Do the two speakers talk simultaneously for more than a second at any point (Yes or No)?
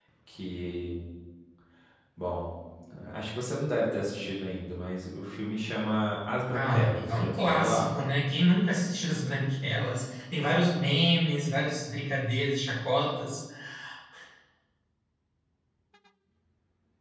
Yes